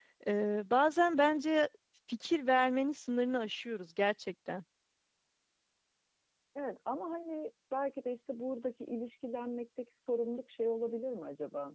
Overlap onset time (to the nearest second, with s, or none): none